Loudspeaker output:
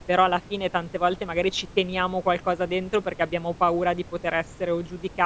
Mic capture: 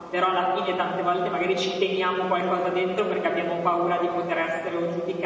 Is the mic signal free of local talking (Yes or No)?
Yes